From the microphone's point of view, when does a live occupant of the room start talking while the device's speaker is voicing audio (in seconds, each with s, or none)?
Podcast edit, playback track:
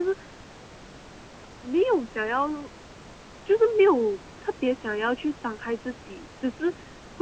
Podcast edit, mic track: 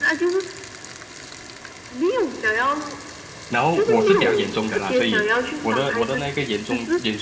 3.5 s